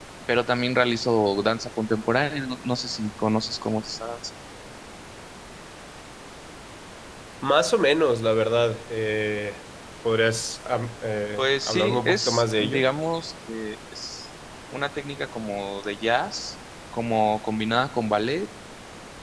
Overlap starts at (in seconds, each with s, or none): 11.4 s